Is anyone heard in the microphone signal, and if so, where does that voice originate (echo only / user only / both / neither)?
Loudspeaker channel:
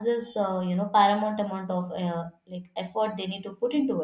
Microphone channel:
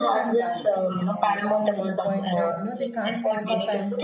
both